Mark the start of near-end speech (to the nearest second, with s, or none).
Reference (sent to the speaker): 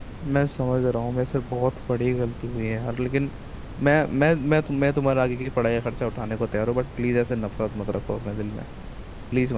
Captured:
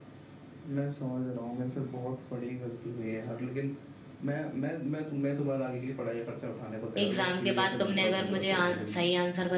7 s